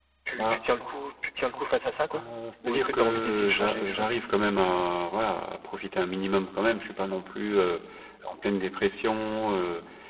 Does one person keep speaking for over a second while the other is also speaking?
Yes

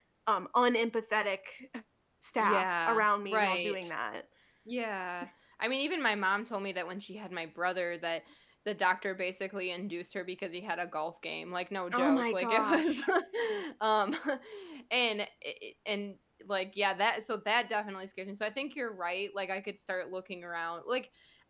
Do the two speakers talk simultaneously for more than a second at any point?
Yes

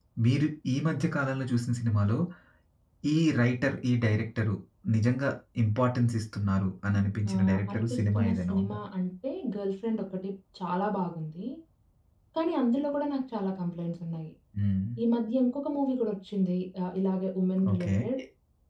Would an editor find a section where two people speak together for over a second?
Yes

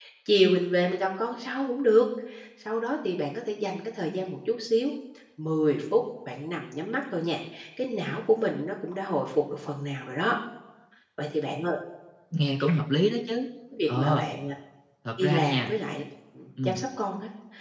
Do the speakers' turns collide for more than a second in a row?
No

